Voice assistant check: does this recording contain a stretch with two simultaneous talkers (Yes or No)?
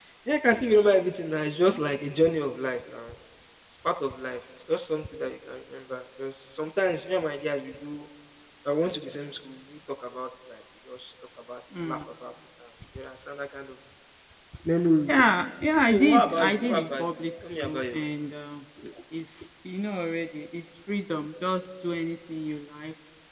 Yes